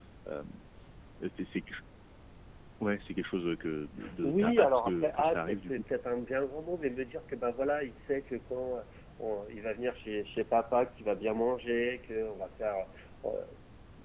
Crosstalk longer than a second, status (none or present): present